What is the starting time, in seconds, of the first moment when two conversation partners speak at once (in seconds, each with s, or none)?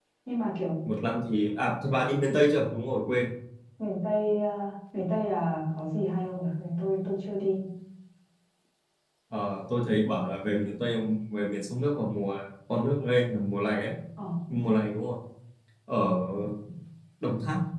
none